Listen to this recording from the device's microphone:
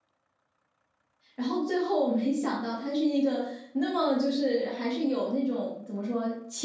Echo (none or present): none